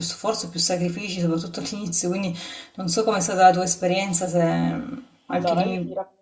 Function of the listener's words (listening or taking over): taking over